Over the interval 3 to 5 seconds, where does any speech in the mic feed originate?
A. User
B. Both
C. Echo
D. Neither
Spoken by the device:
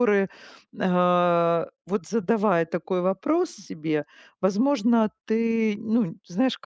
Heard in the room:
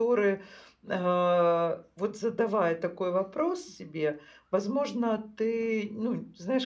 C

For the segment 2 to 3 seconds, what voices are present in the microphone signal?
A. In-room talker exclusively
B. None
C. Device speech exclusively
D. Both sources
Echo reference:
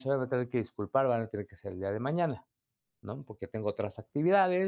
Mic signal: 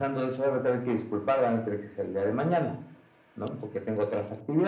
C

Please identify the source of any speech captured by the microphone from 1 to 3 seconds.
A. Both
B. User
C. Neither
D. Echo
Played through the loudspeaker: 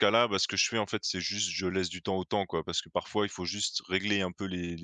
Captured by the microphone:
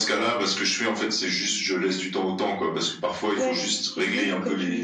D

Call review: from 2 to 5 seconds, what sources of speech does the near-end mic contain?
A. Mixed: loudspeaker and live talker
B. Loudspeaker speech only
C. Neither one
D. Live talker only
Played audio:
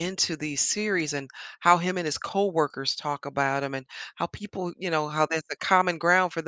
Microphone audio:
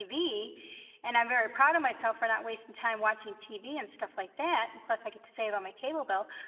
D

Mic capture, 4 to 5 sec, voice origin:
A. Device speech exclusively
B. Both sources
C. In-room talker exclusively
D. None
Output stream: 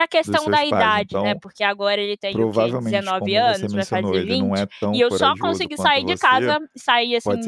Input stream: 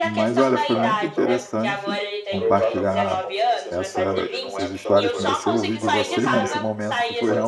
B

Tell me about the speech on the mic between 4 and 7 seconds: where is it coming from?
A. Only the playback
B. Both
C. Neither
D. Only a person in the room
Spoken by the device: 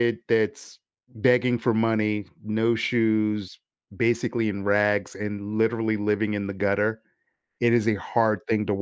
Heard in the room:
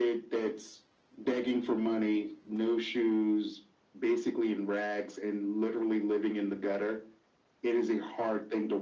A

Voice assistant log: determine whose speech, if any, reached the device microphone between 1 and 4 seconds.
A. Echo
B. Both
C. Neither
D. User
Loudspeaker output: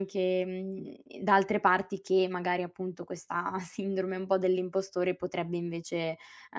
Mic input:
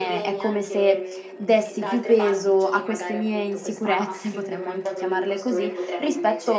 B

